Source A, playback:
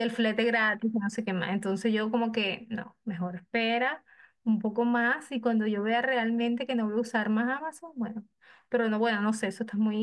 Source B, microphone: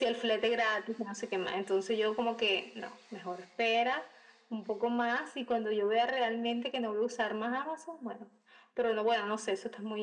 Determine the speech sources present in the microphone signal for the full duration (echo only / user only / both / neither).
echo only